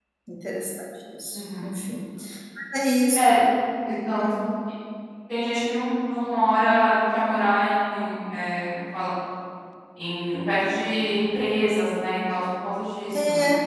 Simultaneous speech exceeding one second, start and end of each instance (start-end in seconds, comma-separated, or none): none